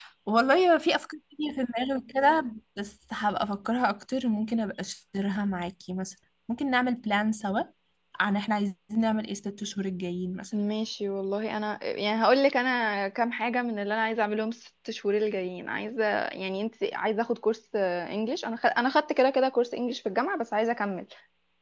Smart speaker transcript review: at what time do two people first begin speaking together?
none

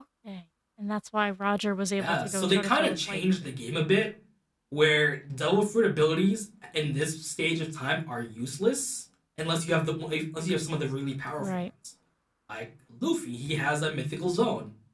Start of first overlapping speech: 2 s

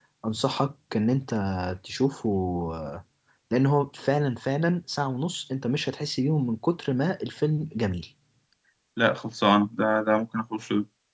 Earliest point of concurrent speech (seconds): none

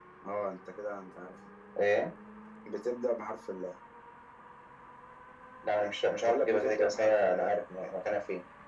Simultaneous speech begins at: 6 s

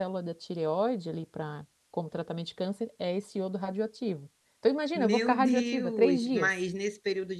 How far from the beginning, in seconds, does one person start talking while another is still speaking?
5 s

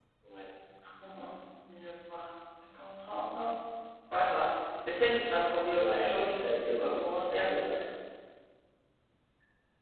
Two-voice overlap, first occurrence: 6 s

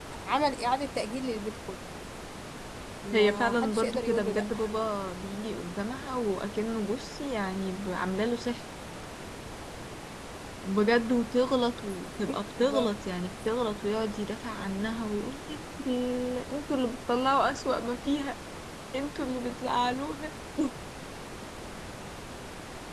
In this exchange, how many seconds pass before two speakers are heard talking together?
3 s

